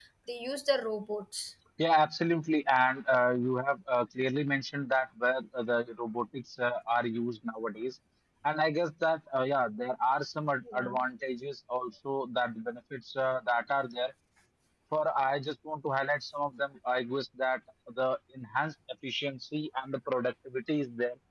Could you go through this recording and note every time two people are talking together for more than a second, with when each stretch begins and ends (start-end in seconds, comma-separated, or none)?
none